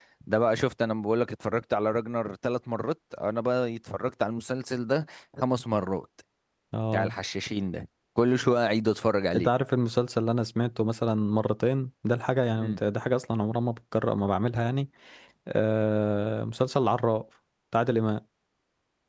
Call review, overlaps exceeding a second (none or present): none